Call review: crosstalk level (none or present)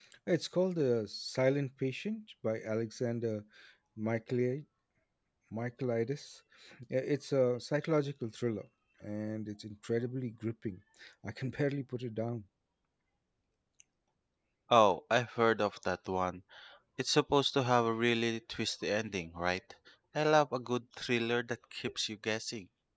none